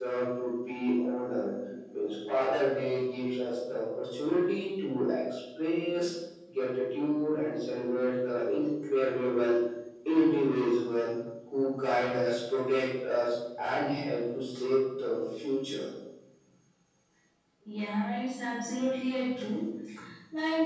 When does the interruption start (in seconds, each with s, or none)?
none